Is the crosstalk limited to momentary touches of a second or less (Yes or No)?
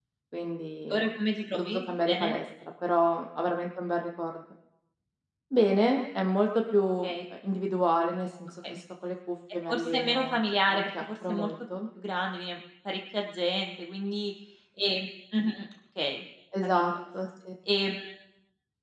No